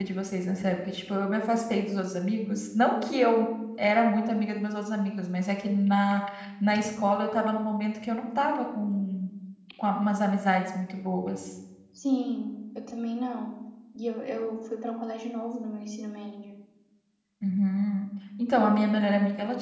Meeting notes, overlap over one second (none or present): none